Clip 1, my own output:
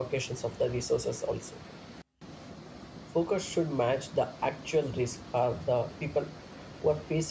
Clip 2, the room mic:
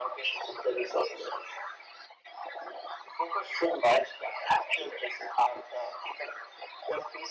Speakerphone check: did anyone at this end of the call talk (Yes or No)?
No